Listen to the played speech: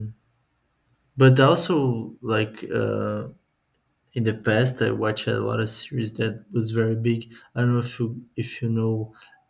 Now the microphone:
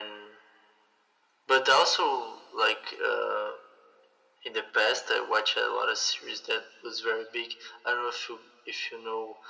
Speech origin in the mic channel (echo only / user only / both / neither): echo only